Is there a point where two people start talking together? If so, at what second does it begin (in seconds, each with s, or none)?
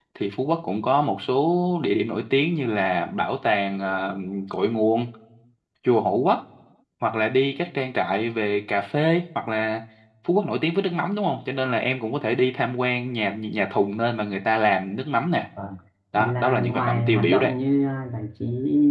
16.2 s